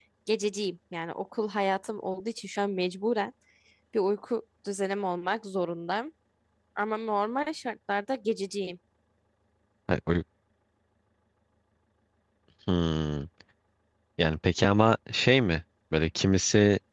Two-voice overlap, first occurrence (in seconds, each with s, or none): none